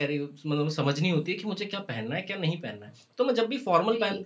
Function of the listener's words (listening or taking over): listening